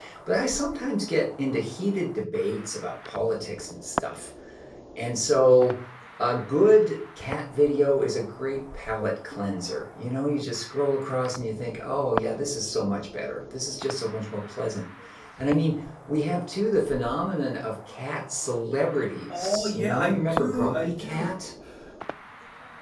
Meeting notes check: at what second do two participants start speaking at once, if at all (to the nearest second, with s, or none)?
19 s